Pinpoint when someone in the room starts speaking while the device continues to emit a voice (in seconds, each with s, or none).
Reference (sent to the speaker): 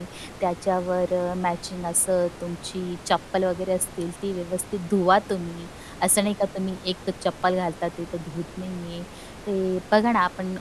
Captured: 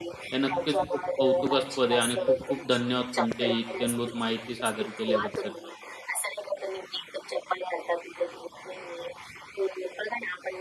0.3 s